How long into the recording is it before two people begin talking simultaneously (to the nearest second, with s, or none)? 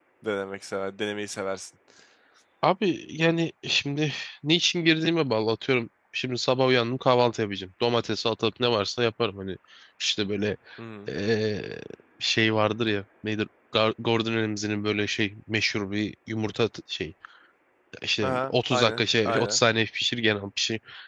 18 s